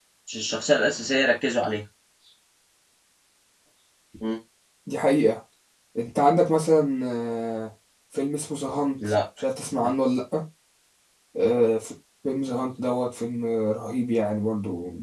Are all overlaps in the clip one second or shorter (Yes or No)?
Yes